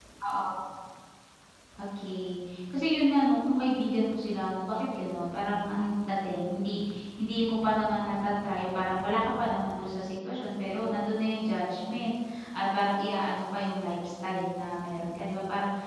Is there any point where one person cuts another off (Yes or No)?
No